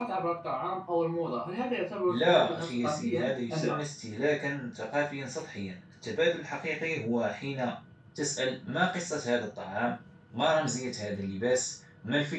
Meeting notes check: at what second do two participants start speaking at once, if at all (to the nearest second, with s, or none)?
2 s